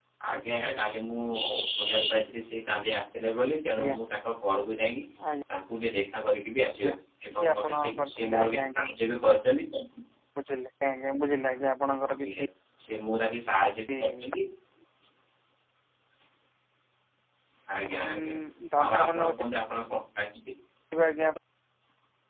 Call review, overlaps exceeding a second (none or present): present